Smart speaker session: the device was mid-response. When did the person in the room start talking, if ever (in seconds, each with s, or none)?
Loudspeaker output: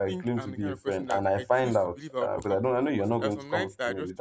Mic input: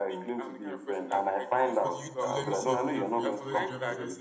1.8 s